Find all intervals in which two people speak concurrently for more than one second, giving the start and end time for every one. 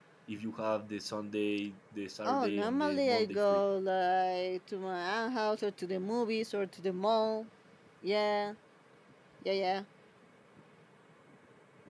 2.2-3.6

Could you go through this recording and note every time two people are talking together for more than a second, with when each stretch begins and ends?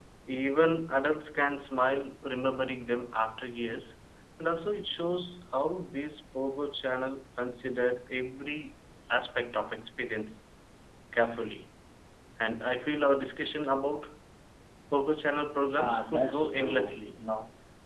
15.8-17.2

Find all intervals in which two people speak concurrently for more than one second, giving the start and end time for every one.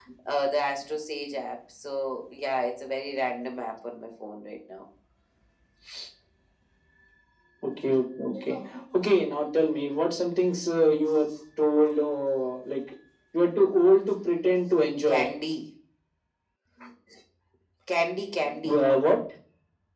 none

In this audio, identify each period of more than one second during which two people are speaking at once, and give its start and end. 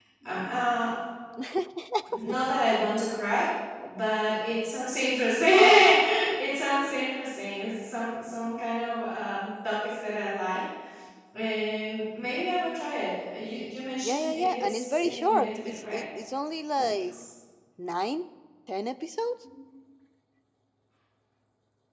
14.0-16.0

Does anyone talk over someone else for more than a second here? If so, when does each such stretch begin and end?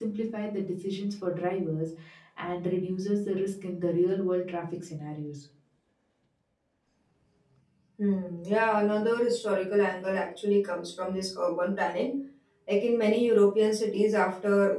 none

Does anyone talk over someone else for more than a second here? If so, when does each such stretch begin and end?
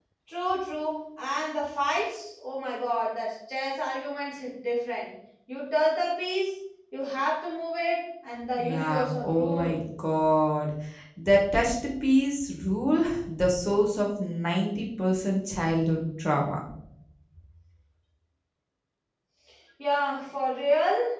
8.6-9.8

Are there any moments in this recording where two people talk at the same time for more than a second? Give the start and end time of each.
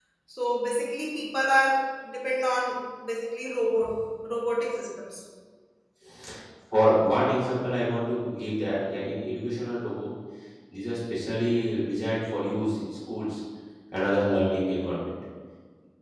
none

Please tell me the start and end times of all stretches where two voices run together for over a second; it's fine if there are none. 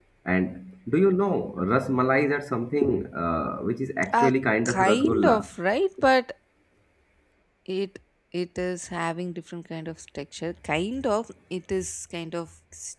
4.1-5.5

